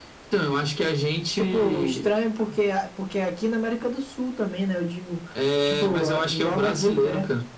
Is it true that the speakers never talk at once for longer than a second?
No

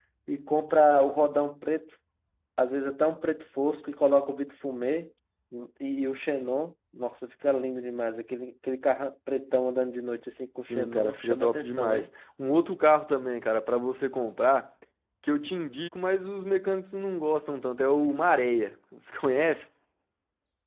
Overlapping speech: Yes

